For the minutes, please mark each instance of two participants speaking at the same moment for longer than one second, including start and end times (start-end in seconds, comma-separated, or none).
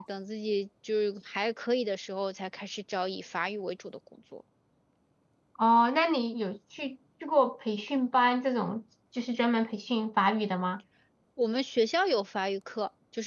none